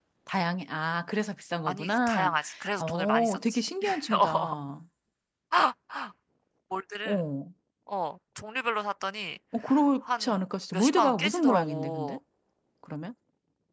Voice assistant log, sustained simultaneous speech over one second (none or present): present